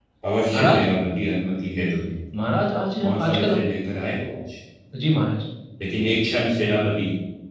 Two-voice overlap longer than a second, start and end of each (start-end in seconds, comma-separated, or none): none